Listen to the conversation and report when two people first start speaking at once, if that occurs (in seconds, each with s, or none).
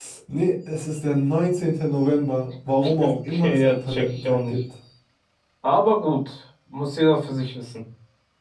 2.8 s